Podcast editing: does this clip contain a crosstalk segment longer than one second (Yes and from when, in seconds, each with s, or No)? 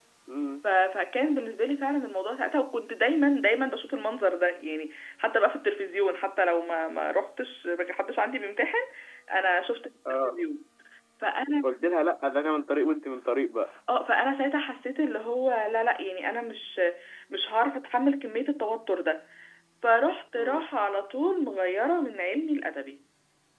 No